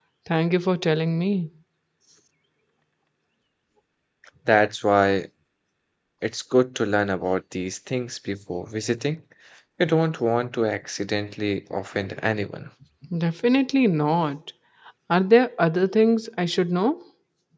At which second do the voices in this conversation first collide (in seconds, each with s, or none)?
none